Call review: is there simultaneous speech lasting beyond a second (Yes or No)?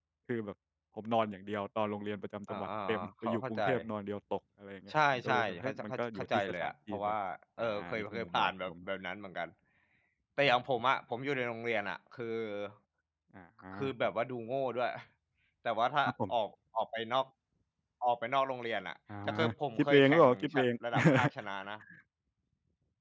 Yes